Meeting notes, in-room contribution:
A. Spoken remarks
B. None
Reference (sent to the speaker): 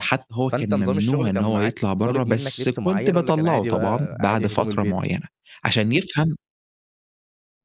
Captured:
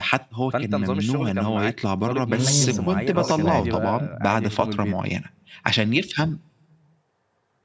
A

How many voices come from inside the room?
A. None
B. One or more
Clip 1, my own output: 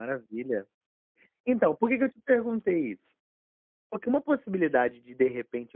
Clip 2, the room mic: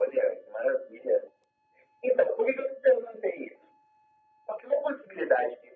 A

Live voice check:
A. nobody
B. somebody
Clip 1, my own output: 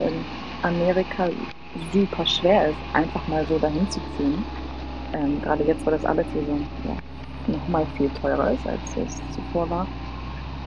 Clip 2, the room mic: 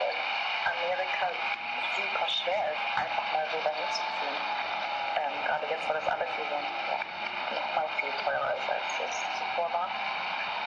A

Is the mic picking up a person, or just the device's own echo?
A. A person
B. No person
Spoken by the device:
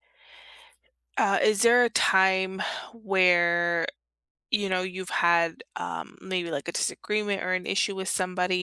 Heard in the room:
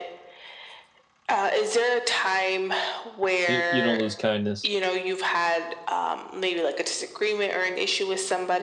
A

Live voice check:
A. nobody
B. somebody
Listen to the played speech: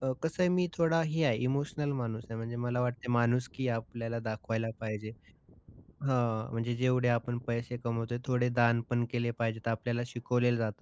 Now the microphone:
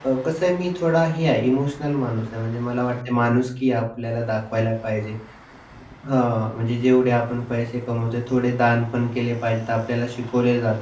A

